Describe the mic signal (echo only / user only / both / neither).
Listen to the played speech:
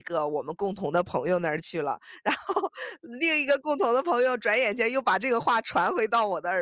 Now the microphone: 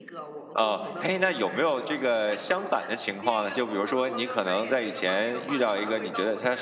both